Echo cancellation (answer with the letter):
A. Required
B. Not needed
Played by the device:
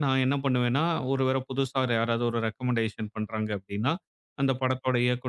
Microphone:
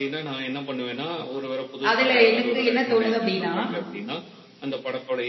A